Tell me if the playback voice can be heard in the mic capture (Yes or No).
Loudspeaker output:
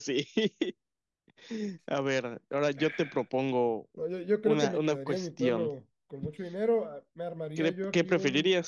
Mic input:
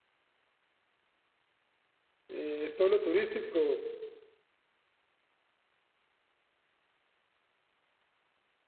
No